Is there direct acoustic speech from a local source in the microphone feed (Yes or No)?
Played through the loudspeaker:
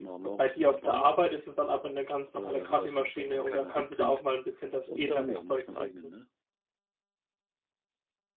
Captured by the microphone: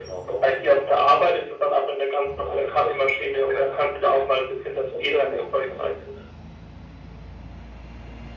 No